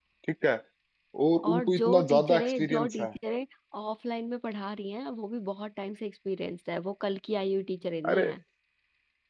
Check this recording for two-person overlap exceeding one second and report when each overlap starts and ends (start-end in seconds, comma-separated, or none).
1.4-3.1